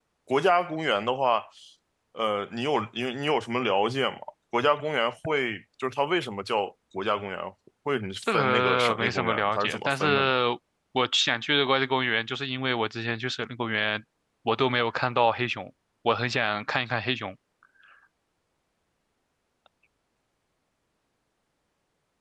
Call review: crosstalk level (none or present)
present